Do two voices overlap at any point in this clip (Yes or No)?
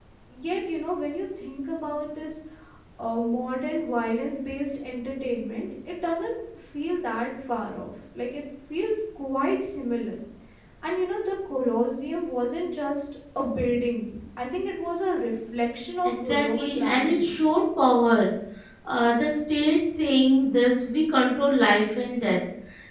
Yes